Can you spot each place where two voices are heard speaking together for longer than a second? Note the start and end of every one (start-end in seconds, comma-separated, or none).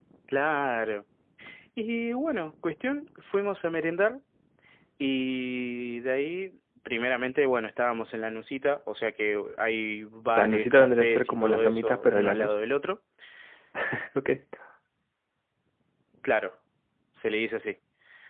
10.4-12.6